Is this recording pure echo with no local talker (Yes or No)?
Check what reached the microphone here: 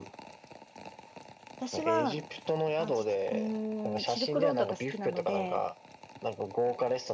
No